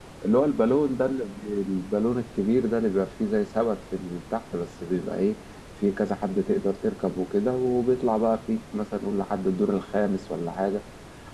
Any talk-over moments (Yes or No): No